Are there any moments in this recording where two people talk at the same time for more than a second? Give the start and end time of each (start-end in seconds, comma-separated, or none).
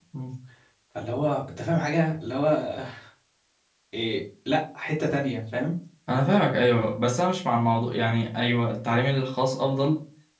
none